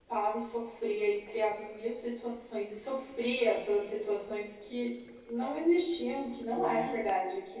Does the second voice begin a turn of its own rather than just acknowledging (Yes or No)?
No